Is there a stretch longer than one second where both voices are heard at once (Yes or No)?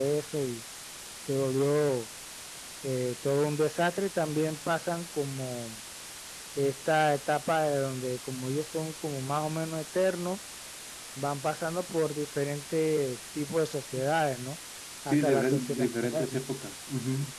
Yes